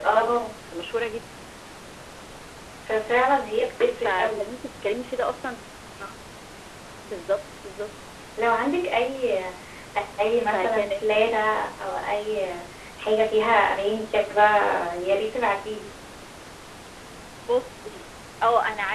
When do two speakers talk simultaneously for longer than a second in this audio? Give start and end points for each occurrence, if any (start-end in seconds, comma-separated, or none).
none